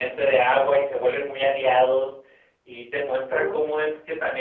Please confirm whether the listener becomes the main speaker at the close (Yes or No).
No